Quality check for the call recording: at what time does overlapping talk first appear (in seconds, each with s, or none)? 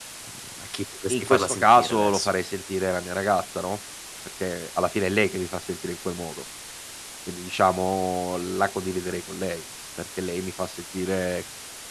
1.1 s